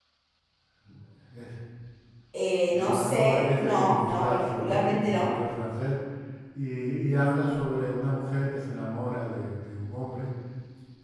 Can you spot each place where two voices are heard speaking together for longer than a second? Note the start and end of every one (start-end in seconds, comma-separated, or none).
2.7-5.3